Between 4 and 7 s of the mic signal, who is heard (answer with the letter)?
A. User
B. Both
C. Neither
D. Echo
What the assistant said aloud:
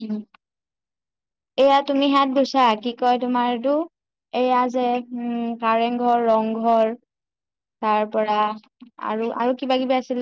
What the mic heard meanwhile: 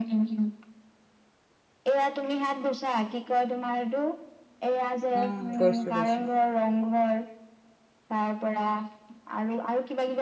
B